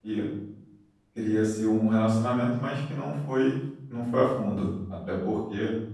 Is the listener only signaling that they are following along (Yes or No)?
Yes